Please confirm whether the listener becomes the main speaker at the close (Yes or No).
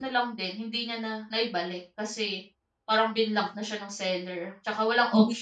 No